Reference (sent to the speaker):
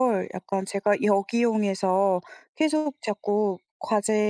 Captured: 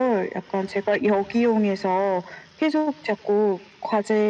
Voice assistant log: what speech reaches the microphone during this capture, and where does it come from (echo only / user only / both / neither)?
echo only